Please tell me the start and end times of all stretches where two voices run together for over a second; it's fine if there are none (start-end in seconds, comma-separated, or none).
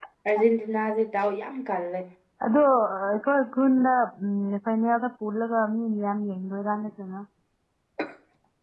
none